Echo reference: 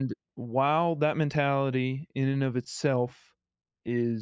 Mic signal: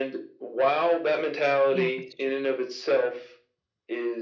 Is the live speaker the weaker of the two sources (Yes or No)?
Yes